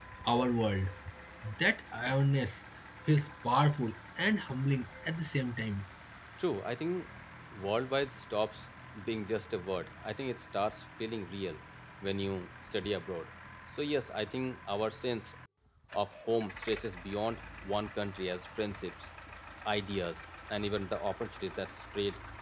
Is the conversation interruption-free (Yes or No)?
Yes